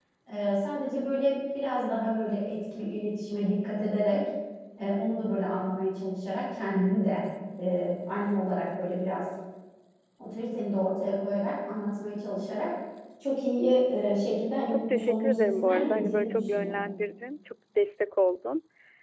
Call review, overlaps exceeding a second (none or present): present